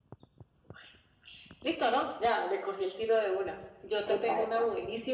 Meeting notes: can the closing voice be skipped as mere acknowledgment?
Yes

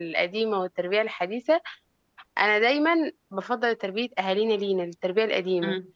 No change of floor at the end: No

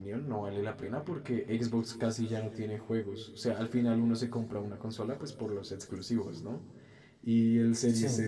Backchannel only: Yes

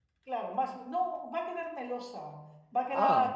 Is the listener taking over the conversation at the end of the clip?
No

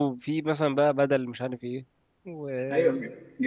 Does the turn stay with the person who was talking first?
No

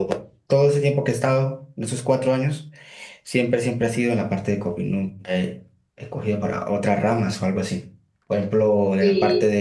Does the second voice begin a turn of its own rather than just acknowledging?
No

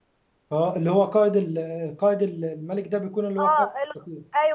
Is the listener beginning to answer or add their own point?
Yes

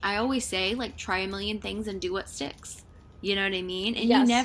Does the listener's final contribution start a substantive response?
No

